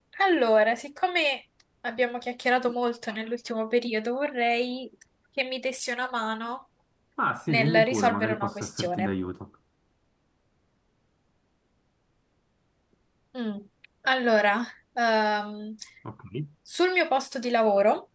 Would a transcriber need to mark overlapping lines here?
Yes, from 7.5 s

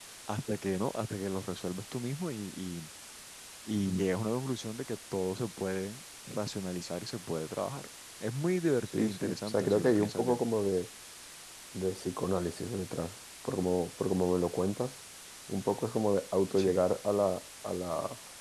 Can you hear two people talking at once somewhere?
Yes, from 8.9 s

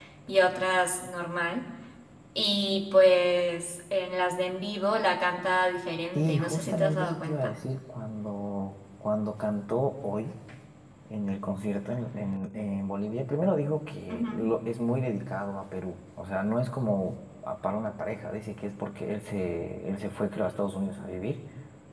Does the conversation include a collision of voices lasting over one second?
Yes, from 6.1 s

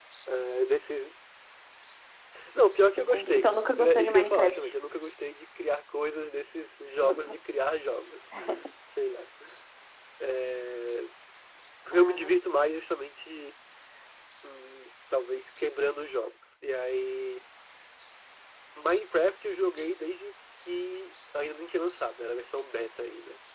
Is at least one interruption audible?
Yes, from 3.0 s

